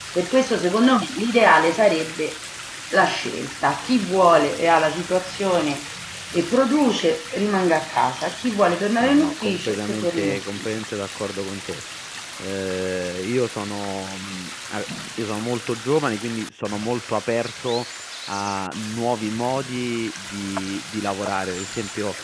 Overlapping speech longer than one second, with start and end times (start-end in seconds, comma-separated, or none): 9.0-10.8